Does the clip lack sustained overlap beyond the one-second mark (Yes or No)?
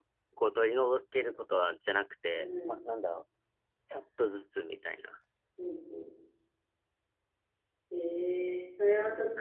Yes